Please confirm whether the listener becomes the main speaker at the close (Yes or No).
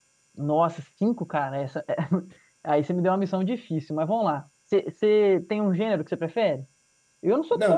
Yes